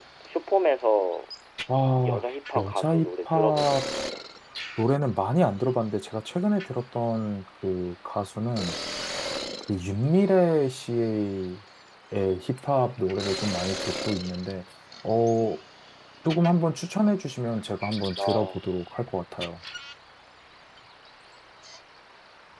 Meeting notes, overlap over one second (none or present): present